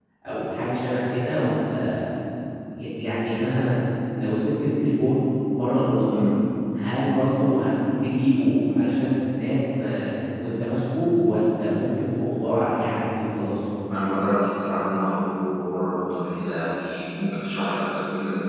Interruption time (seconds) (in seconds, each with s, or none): none